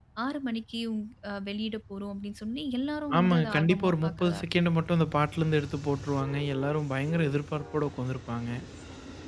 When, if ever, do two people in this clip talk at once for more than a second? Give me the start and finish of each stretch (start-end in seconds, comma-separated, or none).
3.2-4.4